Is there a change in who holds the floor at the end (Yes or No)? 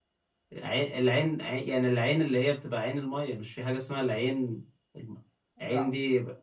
No